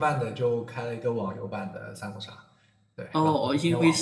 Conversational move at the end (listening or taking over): taking over